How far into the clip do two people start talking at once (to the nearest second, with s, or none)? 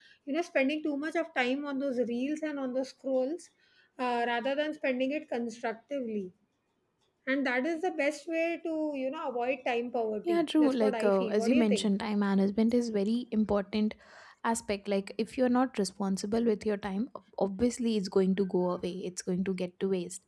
10 s